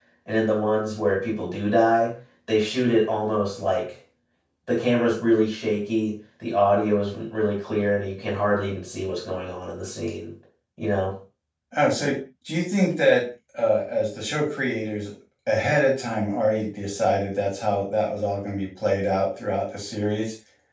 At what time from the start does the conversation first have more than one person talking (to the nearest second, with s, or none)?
none